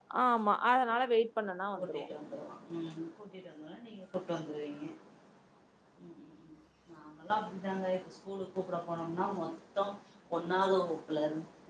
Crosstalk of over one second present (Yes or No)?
No